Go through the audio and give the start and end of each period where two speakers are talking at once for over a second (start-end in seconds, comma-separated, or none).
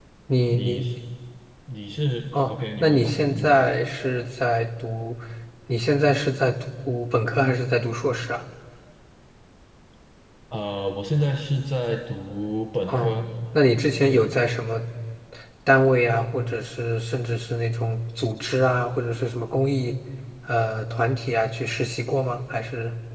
2.3-3.7